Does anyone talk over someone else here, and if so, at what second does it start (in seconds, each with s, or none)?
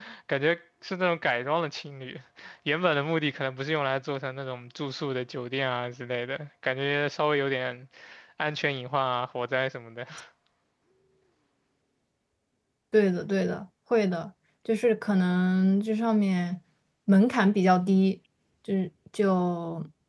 none